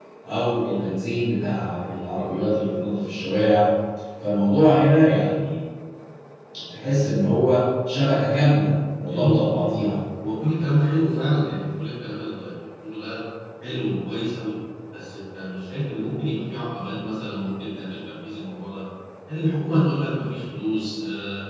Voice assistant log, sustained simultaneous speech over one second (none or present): none